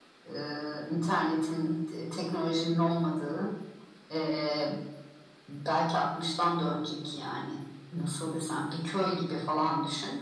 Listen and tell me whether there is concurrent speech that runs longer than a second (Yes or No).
No